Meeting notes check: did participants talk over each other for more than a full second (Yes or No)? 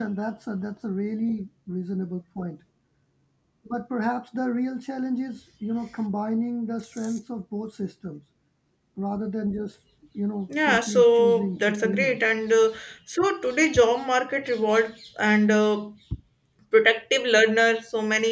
Yes